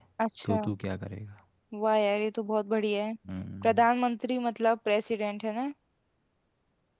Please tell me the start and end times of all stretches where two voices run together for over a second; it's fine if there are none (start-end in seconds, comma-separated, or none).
none